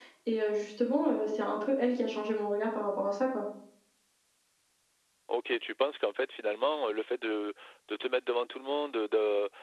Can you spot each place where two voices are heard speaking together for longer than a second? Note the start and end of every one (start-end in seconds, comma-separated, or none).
none